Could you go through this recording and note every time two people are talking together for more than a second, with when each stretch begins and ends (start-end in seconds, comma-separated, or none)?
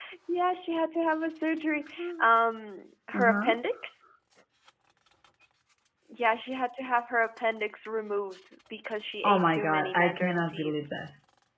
9.2-10.8